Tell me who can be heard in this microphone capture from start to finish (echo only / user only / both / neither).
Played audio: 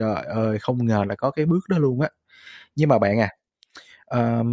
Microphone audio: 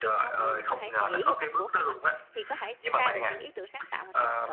both